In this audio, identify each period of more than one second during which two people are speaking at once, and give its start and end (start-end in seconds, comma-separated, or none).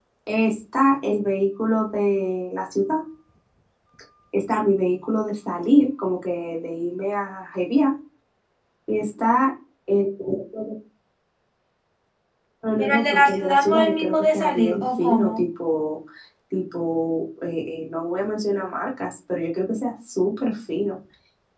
12.8-15.5